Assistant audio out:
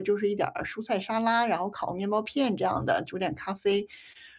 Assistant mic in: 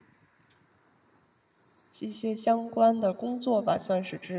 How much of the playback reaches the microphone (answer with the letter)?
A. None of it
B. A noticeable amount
A